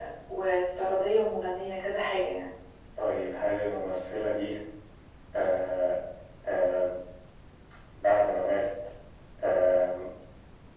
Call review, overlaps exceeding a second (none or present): none